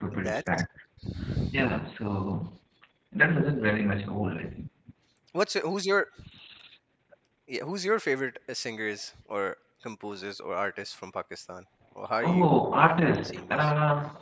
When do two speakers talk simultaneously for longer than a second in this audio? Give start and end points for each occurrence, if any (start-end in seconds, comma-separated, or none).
none